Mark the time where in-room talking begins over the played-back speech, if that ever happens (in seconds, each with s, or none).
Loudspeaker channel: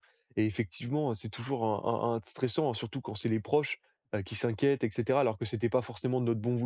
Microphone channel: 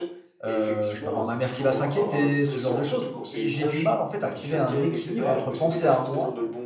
0.4 s